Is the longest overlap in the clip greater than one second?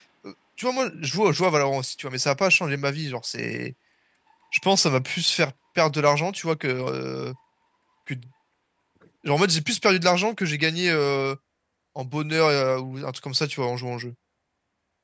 No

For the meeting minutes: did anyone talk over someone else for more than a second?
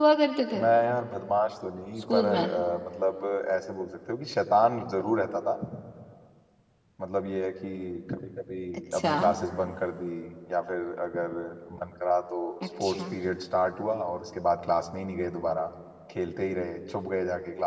No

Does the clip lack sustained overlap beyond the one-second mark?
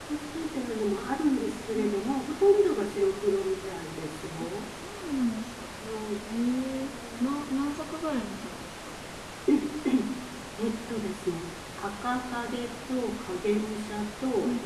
Yes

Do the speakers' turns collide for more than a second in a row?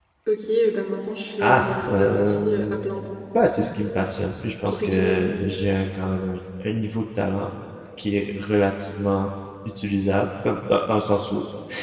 Yes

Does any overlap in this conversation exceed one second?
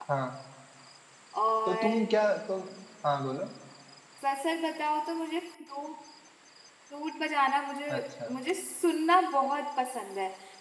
No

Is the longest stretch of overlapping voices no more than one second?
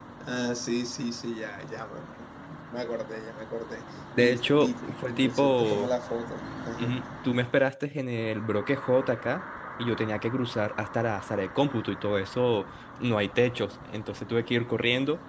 No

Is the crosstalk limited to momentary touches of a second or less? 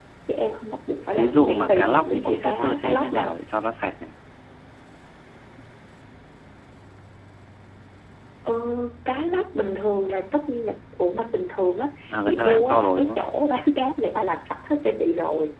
No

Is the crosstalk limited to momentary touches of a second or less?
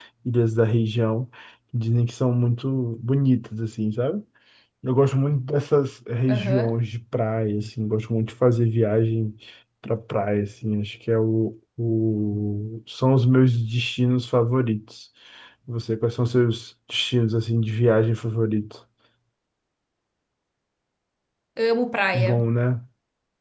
Yes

